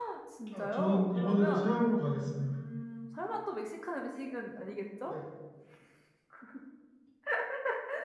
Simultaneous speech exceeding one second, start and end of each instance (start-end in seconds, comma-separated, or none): 0.5-1.8